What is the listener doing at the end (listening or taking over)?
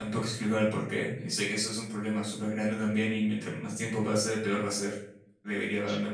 listening